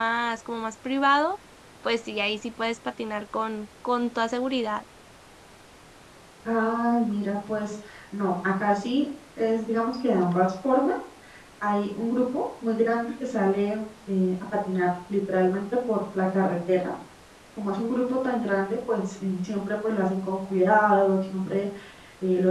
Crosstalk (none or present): none